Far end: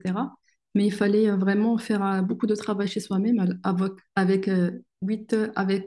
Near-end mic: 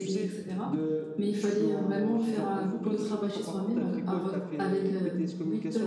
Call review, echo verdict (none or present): present